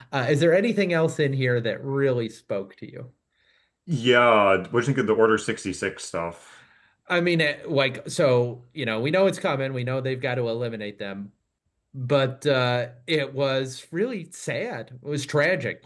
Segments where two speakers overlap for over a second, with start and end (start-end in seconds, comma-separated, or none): none